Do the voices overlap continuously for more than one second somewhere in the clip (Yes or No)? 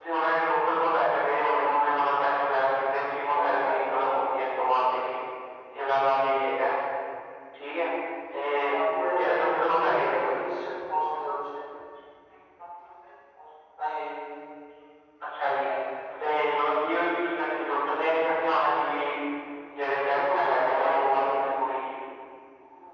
Yes